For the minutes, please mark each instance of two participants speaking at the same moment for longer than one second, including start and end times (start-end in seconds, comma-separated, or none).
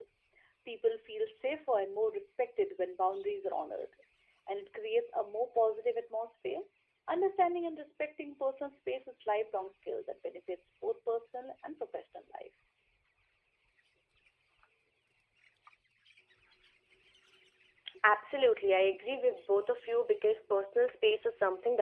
none